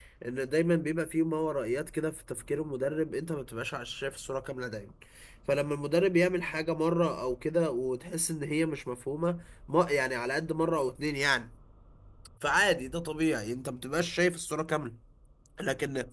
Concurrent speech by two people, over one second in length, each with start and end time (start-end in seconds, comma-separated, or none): none